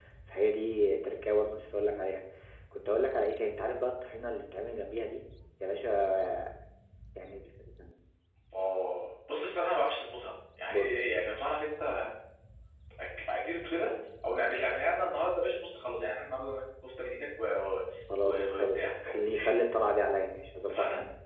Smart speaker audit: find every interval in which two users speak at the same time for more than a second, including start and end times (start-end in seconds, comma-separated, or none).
18.2-19.6